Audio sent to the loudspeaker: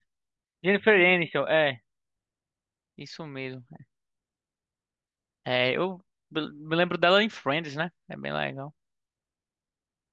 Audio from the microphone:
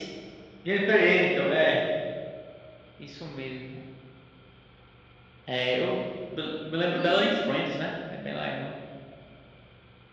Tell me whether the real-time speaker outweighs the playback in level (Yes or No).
No